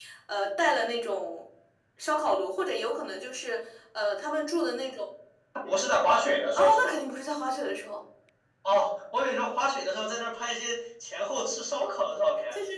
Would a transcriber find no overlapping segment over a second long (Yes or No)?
Yes